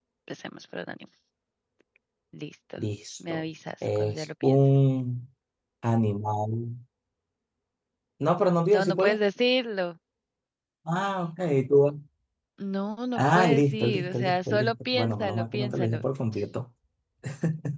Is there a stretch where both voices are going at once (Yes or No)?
Yes